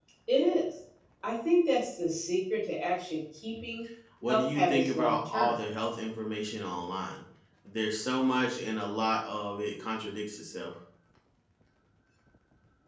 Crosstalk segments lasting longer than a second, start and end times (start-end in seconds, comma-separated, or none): 4.3-5.5